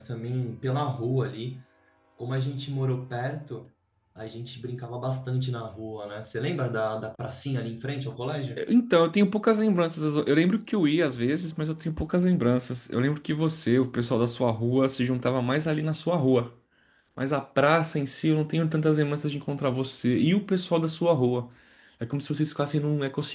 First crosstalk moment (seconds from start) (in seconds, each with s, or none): none